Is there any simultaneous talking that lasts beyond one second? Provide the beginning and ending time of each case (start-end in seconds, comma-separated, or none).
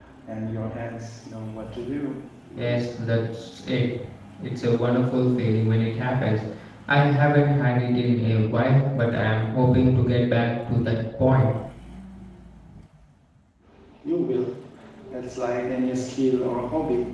none